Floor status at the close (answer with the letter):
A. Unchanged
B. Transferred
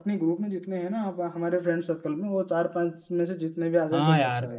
B